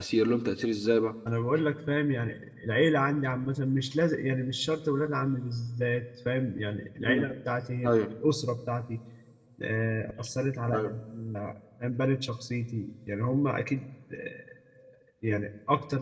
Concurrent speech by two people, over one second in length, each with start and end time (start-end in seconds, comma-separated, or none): none